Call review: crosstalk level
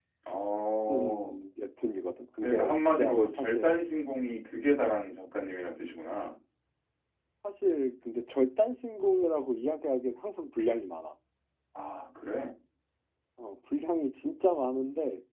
present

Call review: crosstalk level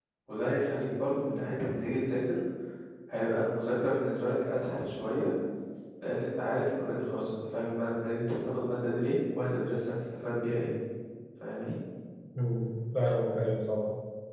none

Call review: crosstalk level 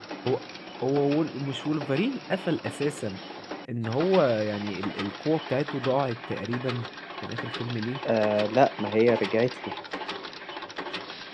none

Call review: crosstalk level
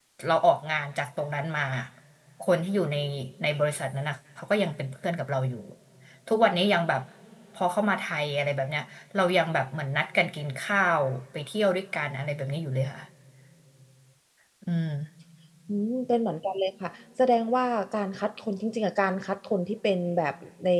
none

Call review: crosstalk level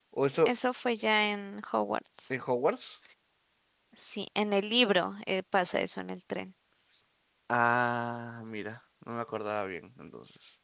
none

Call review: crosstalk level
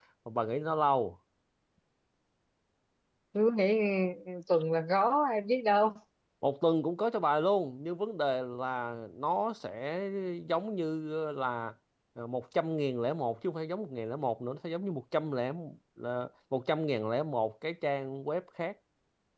none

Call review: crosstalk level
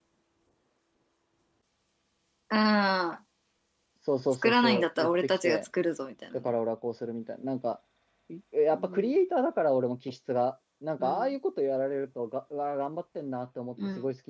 present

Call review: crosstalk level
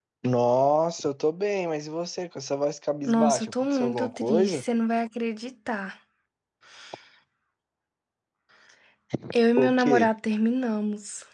present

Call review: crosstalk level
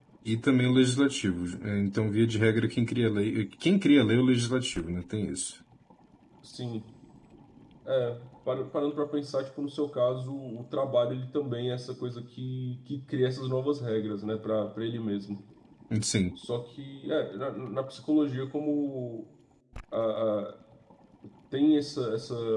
none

